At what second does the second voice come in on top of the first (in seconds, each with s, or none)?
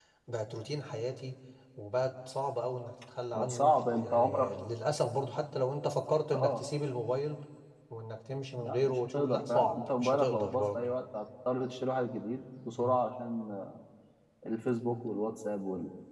3.4 s